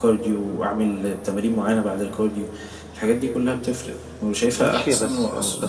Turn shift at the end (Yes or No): Yes